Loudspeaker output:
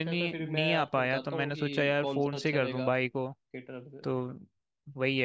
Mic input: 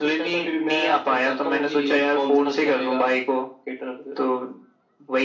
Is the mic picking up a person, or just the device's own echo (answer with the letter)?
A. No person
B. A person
A